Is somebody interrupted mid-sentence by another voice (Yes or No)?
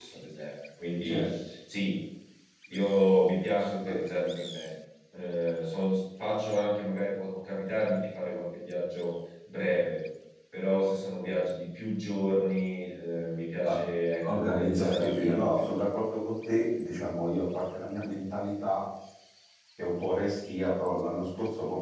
Yes